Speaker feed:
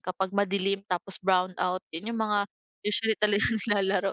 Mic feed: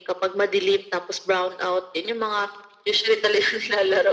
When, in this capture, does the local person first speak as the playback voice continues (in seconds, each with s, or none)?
none